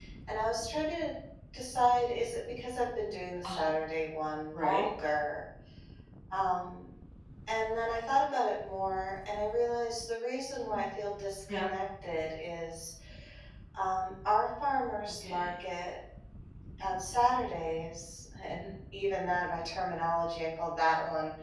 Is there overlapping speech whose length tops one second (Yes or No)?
No